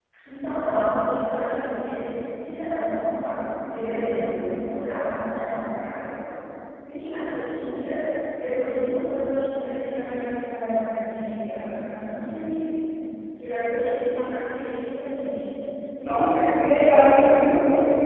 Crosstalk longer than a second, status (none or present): present